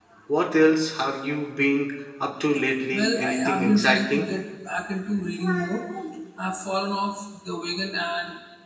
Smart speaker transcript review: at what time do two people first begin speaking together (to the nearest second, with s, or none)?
3 s